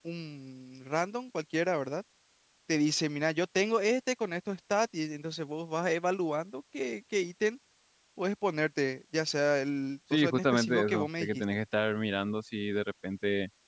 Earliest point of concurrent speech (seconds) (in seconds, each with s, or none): 10.1 s